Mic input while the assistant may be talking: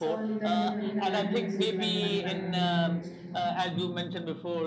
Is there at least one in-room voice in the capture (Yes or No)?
Yes